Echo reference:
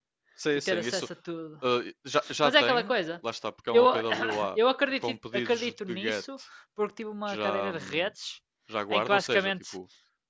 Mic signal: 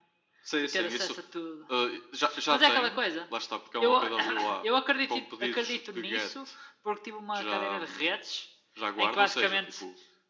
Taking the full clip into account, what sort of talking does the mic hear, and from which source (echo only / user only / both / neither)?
echo only